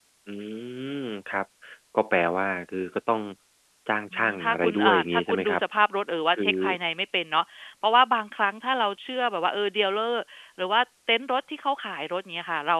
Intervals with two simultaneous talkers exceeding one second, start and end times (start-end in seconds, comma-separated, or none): 4.1-5.6